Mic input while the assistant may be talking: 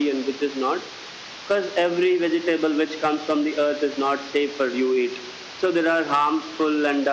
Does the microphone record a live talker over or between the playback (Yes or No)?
No